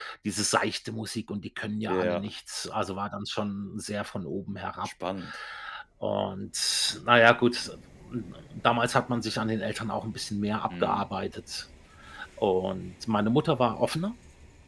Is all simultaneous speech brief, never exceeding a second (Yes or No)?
Yes